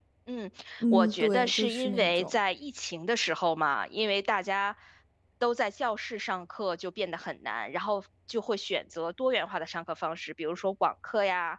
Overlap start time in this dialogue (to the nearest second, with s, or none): 1 s